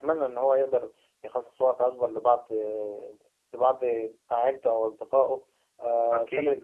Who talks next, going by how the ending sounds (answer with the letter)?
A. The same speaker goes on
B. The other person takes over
B